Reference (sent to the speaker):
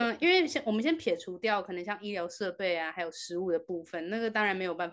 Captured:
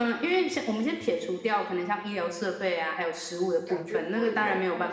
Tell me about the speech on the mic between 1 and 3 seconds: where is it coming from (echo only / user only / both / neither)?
echo only